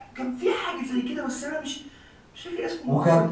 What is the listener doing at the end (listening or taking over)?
taking over